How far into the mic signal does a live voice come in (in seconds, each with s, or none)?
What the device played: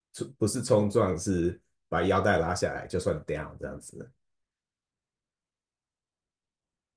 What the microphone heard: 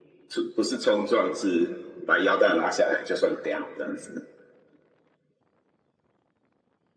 none